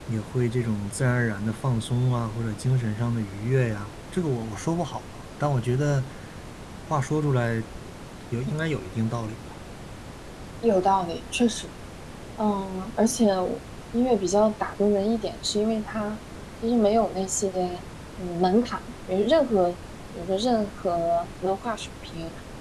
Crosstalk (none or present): none